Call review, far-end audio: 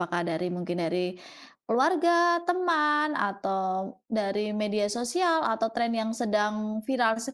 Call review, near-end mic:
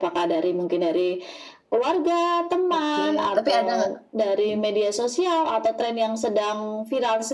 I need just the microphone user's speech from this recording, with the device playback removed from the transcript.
oke. Tapi ada nggak mhm,

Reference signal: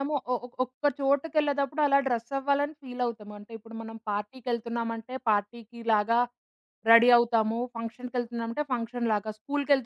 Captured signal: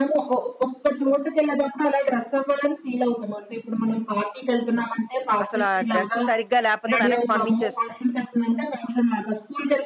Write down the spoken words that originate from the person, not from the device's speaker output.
అసలు ఆ డ్రెస్ సరిగ్గా లేకపోతే వెనక్కి పంపించేస్తున్నారు.

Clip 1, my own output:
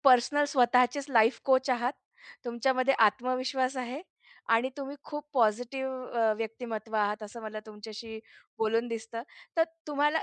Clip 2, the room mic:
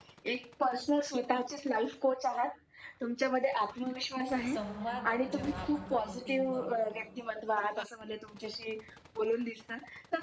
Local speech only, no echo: संवाद जेव्हा आपण करतो टीमबरोबर,

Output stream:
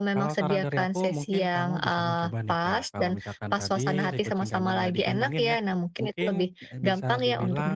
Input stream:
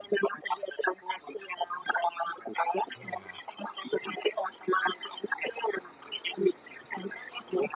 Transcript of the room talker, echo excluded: Iya,

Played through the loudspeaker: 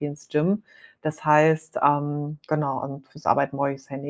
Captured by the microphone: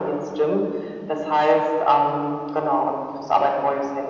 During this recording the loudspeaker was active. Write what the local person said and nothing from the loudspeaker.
none

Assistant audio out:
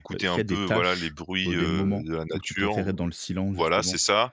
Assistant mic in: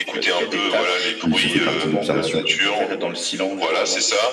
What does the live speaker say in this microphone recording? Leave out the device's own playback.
Oui, ça fait partie de l'observation.

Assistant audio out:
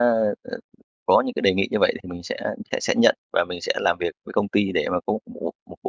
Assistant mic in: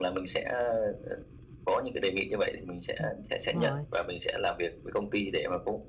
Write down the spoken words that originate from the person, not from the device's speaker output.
Ừm, đúng rồi.

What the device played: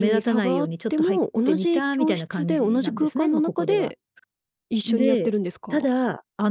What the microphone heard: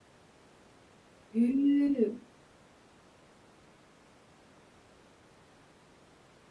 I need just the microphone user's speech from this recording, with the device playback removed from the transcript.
へえ。

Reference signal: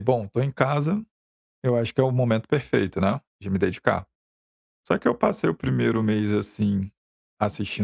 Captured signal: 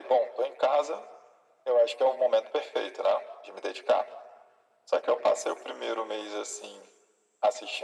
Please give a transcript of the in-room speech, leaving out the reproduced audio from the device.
none

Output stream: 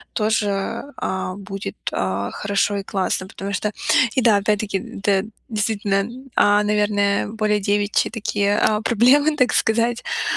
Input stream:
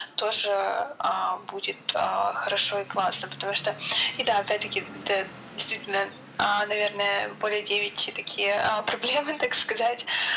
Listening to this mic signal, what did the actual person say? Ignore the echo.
none

